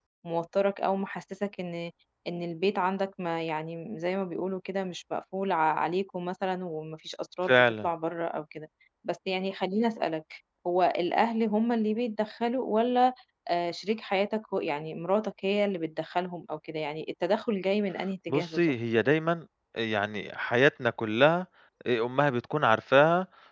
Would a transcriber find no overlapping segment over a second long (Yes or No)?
Yes